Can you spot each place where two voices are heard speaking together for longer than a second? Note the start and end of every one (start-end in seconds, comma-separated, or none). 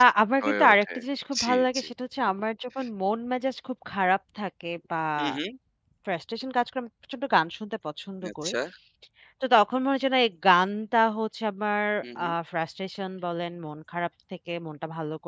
none